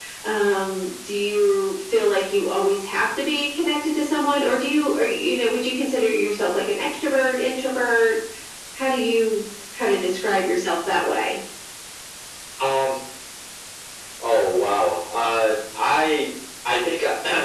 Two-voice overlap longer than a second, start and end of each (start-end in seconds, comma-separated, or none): none